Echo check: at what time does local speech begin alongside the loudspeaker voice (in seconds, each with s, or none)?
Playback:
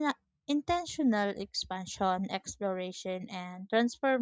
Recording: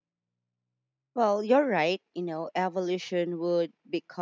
1.1 s